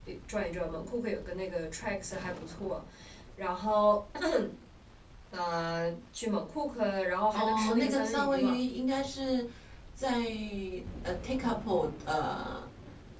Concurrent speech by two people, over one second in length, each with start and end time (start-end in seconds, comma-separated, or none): 7.3-8.6